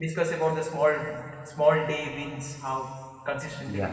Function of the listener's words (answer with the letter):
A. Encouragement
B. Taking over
B